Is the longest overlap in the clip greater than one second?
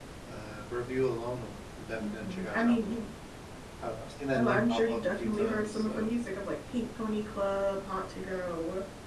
Yes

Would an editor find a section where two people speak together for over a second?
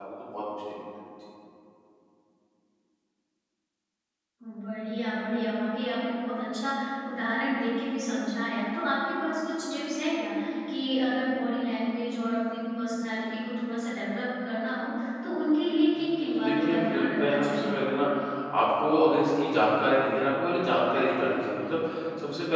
Yes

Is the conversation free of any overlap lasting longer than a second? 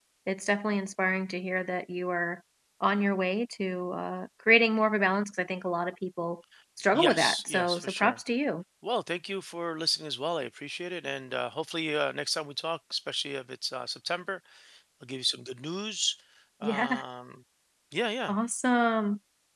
No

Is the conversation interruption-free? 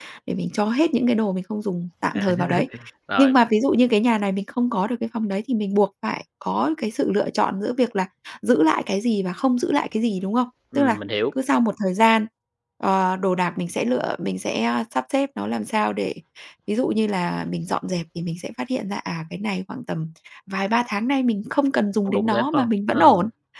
No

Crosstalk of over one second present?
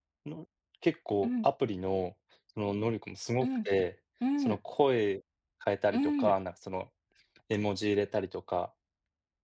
No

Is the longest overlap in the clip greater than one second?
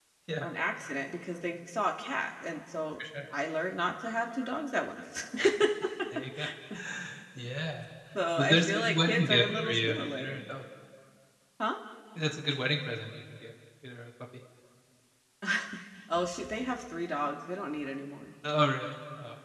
Yes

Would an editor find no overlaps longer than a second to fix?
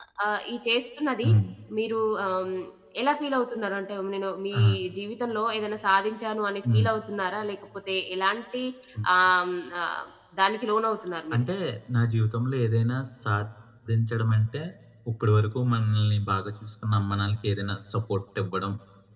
Yes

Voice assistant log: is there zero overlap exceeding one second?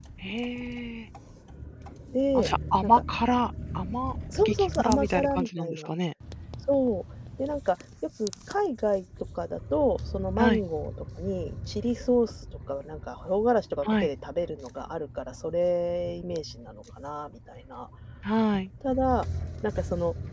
No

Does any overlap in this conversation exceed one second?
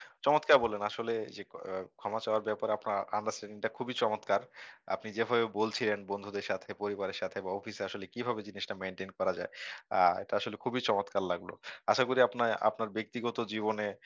No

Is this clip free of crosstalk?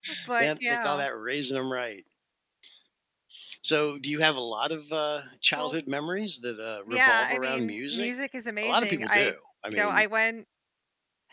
No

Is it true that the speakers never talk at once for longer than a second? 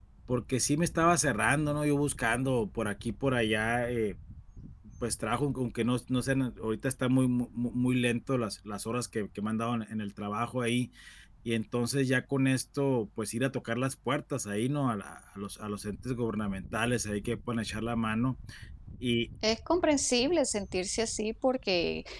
Yes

